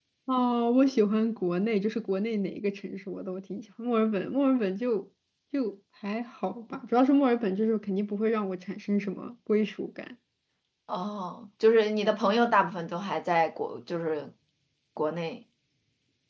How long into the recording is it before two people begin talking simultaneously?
none

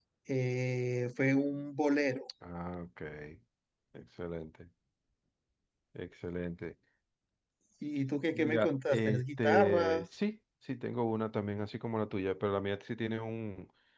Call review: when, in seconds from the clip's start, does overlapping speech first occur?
8.3 s

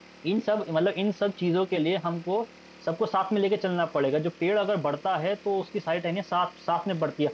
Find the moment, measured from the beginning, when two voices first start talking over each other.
none

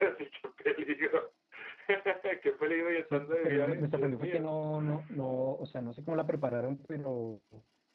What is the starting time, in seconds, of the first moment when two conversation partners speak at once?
3.1 s

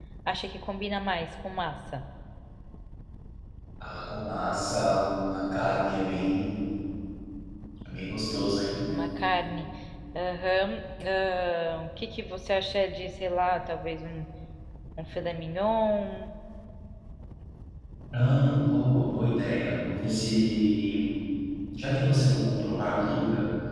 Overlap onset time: none

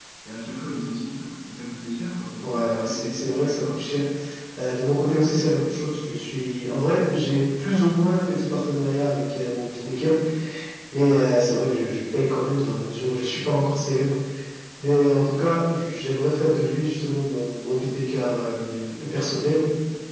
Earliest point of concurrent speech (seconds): 2.4 s

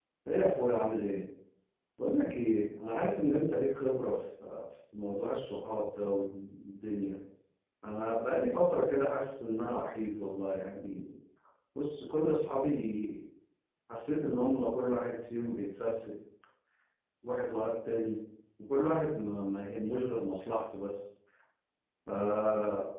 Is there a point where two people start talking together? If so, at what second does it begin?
none

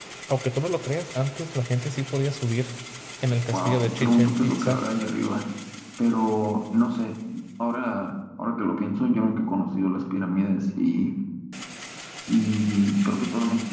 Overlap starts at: 3.5 s

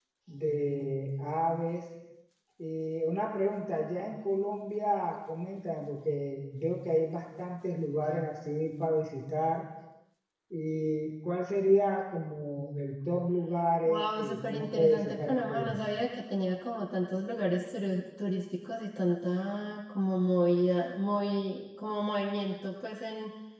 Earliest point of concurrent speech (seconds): 13.8 s

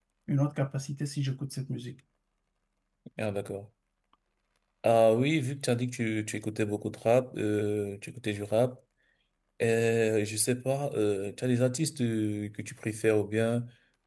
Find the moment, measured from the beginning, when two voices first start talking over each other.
none

